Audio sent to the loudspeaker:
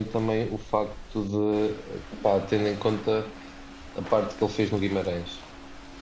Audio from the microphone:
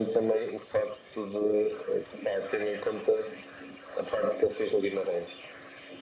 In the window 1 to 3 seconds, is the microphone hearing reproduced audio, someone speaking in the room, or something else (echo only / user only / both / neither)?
echo only